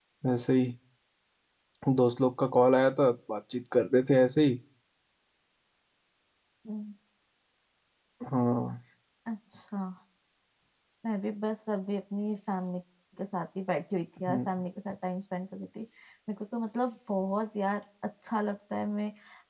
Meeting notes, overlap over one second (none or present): none